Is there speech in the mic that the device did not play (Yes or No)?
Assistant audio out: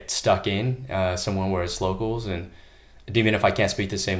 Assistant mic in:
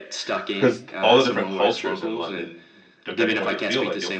Yes